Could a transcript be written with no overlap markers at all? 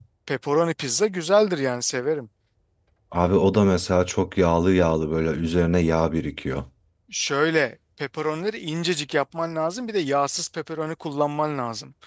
Yes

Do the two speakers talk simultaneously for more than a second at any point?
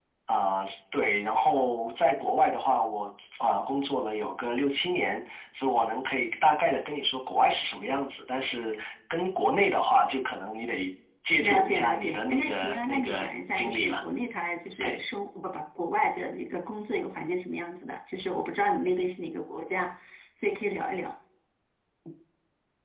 Yes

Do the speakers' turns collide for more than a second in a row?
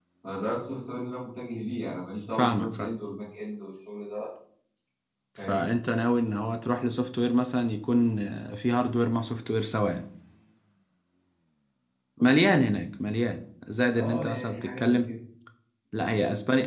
Yes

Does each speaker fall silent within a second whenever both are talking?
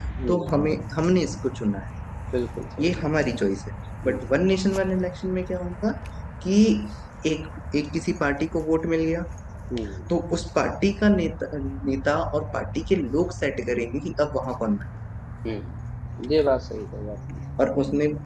Yes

